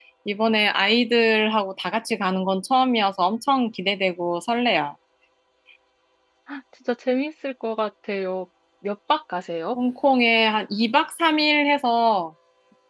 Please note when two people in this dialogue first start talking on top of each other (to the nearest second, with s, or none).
none